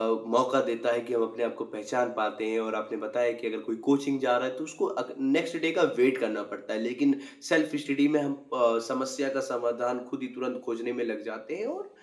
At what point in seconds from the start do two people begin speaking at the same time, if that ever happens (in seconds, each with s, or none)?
none